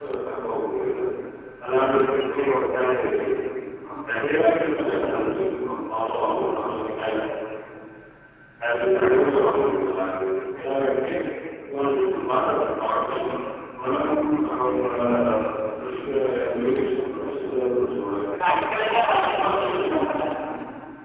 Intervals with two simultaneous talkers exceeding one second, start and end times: 18.4-20.1

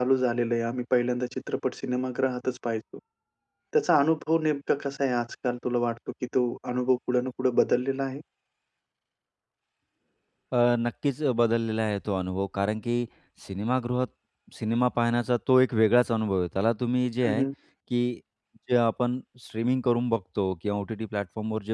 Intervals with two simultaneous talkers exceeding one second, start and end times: none

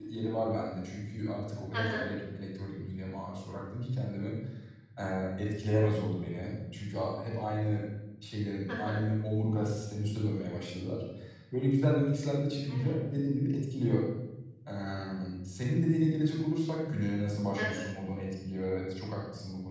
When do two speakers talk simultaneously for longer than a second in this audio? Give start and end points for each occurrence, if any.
none

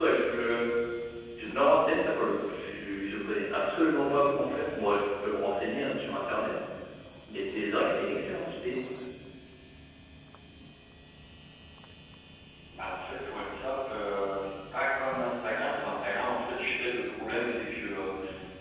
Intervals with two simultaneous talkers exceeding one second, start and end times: none

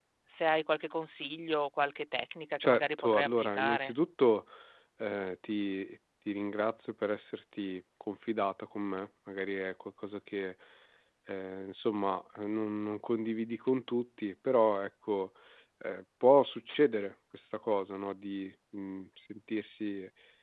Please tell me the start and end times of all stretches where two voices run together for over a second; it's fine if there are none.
2.6-3.9

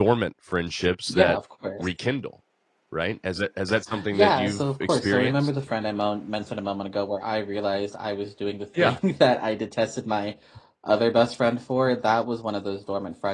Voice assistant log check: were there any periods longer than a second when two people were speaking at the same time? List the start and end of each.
4.1-5.3

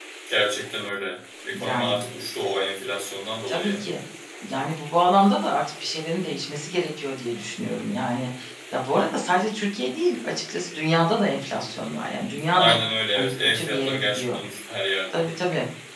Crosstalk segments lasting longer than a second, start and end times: 13.1-14.4

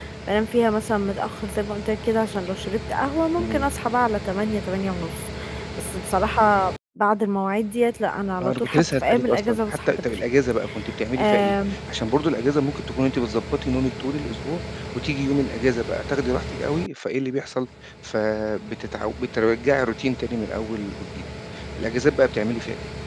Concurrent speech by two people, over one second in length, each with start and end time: 8.4-10.2

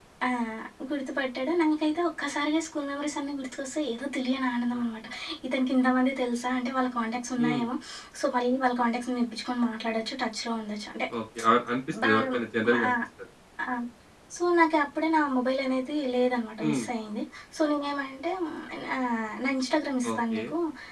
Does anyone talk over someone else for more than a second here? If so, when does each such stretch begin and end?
none

